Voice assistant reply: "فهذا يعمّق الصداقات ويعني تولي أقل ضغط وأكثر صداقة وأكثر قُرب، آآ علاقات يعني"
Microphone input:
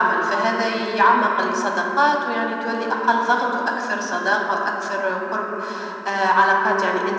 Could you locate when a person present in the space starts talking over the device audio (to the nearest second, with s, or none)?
none